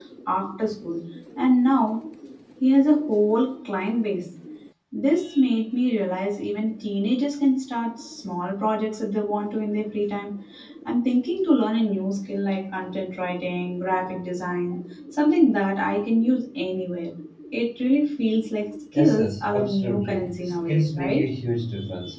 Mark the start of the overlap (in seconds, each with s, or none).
19.0 s